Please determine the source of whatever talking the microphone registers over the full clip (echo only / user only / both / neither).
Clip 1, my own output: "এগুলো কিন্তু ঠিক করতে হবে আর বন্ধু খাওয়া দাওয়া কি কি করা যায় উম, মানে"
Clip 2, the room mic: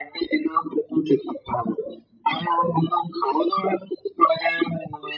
echo only